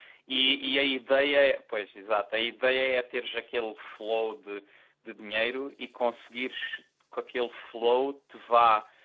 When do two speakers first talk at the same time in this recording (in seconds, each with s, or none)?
none